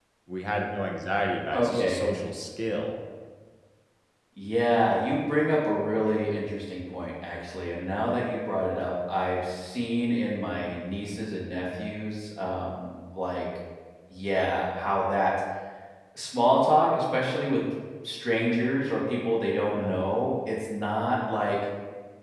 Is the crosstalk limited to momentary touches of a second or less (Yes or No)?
Yes